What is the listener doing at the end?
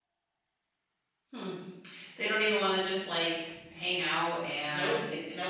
taking over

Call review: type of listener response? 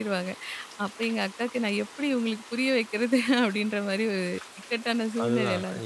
taking over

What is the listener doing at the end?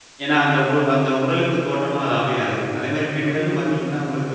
listening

